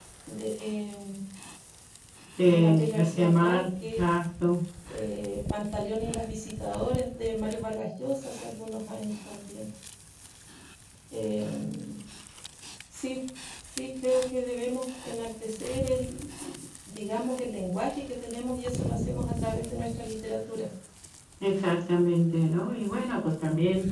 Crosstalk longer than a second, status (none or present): present